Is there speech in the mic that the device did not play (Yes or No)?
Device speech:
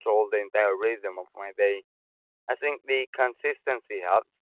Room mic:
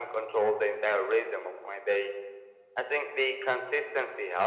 No